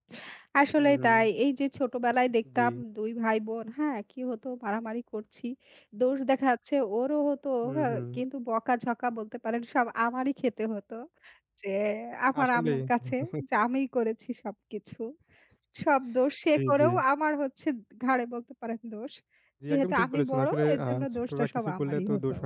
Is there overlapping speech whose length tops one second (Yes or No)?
Yes